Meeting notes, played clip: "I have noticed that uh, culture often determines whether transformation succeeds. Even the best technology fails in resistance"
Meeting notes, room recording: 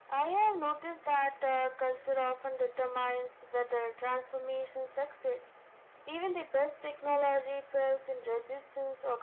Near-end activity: none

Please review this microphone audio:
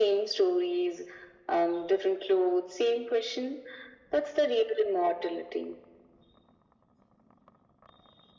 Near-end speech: none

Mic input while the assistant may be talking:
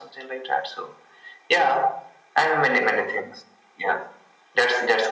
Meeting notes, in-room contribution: none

